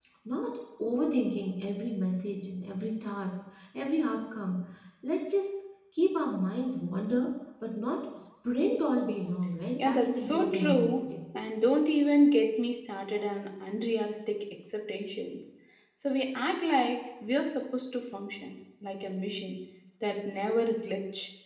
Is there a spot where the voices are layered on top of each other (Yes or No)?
Yes